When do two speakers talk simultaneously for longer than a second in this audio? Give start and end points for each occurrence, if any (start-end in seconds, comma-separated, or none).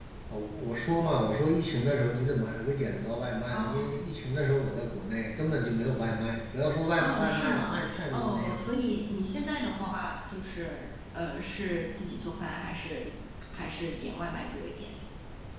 7.0-8.6